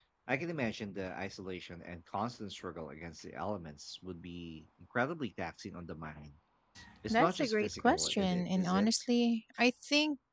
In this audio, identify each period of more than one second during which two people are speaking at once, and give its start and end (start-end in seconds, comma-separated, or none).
7.1-9.1